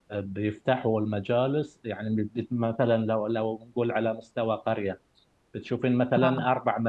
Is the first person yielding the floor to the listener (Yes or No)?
No